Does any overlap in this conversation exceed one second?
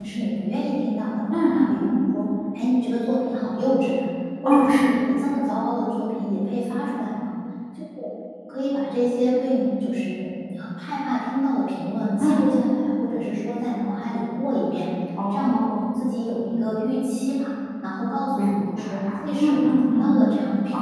Yes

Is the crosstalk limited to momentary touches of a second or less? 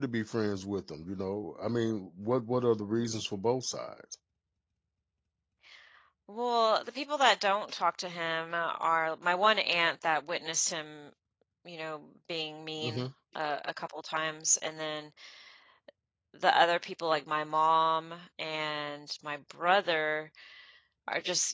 Yes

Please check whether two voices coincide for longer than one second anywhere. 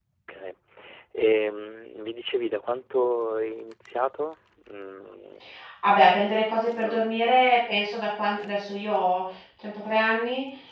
No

